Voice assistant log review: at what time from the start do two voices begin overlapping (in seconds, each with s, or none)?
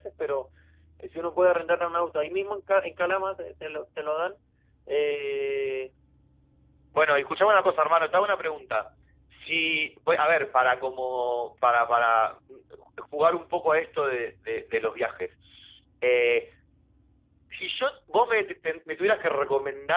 none